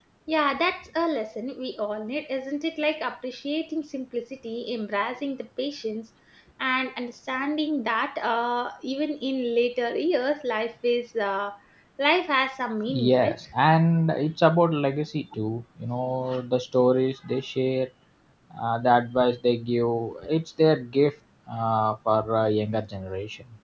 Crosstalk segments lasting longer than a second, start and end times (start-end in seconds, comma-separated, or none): none